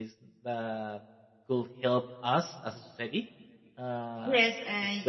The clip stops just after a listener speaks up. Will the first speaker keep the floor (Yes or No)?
No